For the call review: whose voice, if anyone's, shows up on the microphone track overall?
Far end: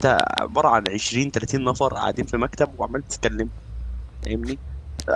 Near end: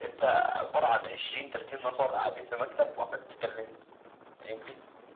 echo only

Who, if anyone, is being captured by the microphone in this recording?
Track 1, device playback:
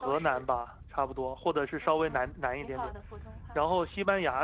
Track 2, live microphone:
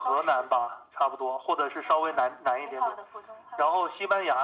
echo only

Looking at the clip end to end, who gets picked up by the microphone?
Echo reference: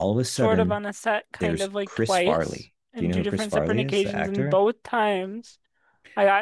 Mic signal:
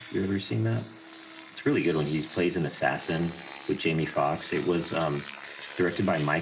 user only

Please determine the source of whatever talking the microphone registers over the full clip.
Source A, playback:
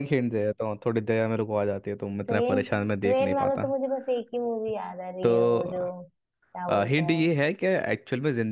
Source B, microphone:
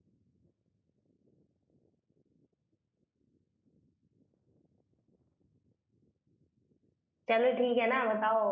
user only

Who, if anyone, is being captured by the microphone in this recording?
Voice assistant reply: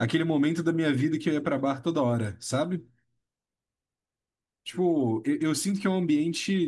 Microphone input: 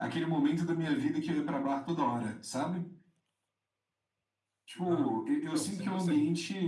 both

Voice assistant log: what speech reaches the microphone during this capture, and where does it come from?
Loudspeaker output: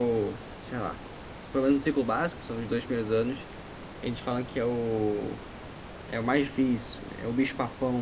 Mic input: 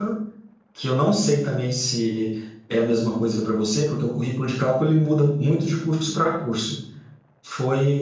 user only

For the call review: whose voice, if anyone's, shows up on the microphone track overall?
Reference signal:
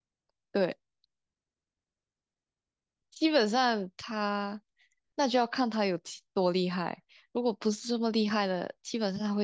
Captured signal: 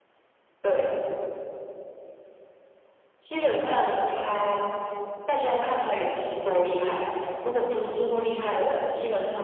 echo only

